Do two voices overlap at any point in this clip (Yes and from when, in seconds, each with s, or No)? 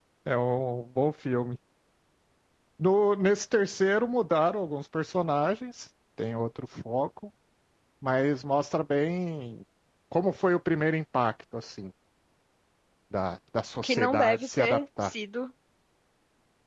Yes, from 13.8 s